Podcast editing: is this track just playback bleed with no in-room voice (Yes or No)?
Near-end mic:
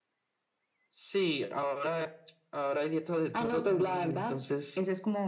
Yes